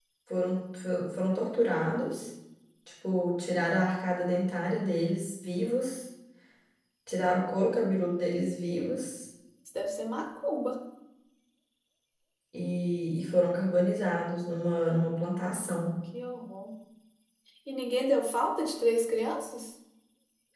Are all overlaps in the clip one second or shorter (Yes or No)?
Yes